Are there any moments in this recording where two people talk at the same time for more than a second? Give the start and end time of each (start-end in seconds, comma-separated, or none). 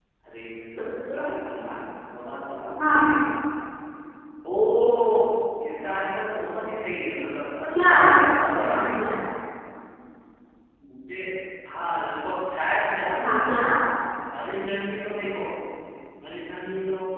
none